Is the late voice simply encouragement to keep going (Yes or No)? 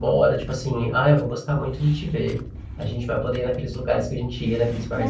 No